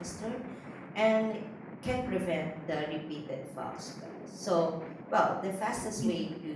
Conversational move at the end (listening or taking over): listening